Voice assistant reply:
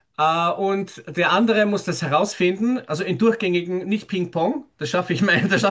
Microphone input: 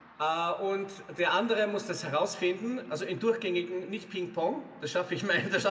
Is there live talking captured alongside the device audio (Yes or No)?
No